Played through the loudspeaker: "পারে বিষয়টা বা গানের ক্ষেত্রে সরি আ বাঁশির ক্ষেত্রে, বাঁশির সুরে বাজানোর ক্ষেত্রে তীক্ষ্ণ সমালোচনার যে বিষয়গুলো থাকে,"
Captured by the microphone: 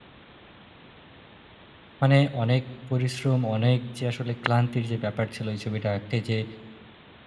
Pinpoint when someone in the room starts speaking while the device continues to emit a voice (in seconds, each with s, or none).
2.0 s